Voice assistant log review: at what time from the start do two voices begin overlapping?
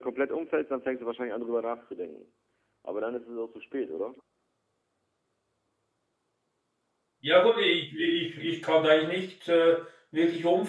none

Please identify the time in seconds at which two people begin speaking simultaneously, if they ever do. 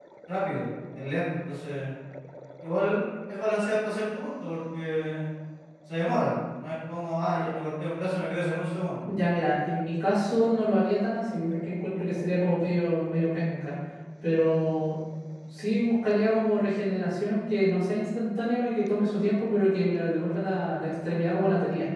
none

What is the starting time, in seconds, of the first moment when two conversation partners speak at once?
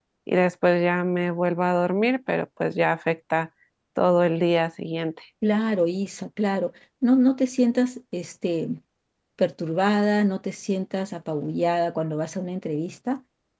none

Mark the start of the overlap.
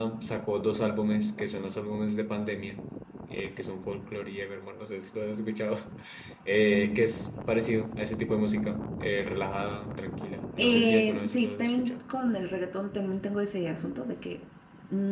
10.6 s

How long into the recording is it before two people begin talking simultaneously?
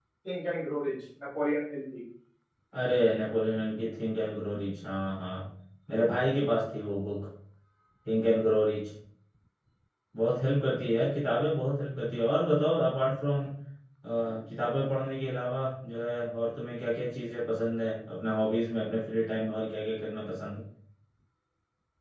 none

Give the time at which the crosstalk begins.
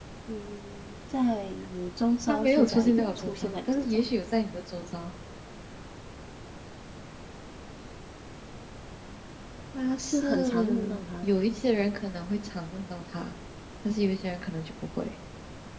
2.3 s

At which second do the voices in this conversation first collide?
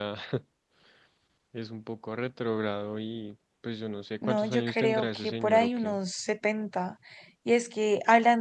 4.2 s

